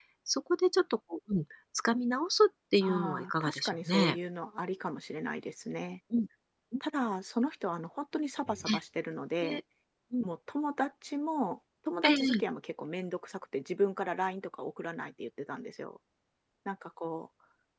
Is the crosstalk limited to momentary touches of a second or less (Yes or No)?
No